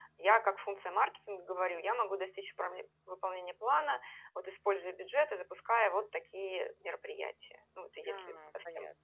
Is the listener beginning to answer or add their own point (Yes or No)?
Yes